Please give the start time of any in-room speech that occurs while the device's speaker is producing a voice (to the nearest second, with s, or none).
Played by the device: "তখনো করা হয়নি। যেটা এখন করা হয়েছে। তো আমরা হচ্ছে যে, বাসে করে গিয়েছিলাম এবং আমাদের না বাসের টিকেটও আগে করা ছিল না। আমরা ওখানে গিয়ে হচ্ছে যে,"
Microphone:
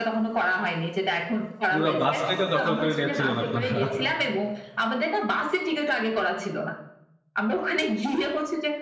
2 s